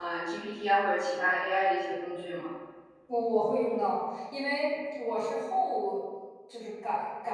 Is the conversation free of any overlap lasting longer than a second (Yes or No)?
Yes